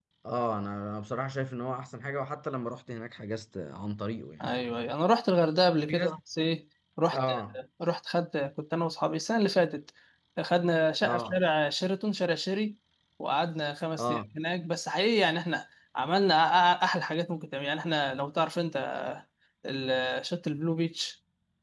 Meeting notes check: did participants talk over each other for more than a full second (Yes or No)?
No